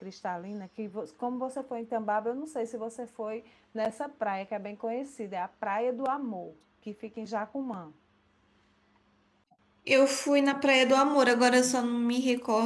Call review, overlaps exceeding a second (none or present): none